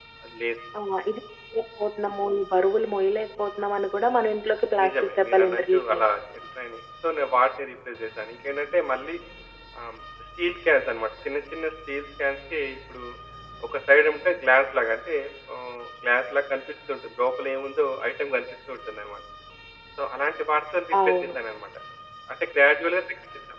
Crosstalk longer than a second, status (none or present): present